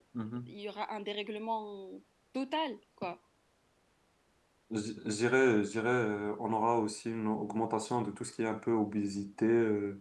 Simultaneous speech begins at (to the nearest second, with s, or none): none